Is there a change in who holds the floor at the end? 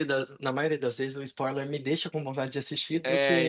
Yes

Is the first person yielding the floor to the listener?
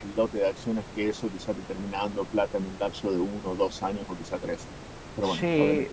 Yes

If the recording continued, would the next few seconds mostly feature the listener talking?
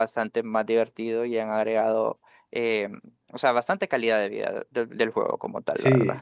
Yes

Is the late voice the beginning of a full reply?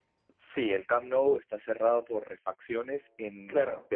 No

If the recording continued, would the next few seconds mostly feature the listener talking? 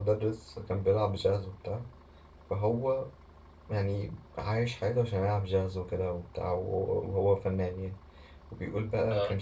No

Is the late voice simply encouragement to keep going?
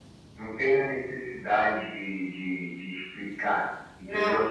No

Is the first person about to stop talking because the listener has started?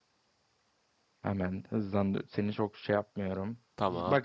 No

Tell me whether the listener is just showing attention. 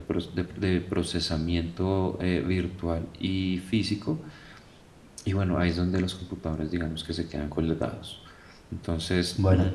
Yes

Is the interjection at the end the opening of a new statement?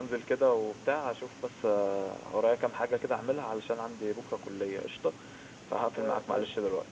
Yes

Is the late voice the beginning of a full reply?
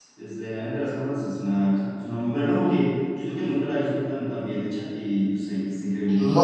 Yes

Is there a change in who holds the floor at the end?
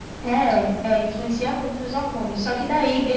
No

